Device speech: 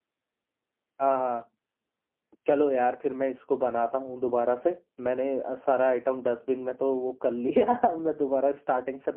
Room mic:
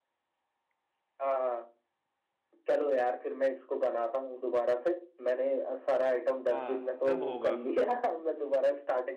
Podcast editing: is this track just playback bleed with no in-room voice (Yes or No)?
No